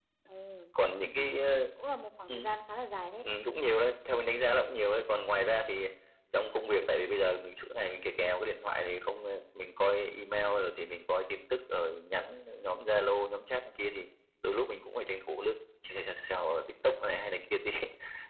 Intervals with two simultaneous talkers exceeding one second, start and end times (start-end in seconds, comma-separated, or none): none